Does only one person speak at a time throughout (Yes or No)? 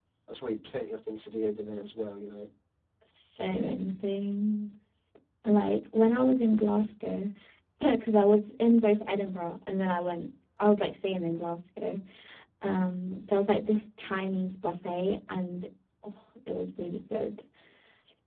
Yes